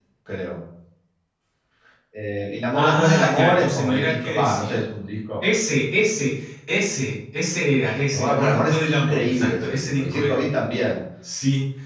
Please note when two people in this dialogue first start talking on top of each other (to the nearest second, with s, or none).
3 s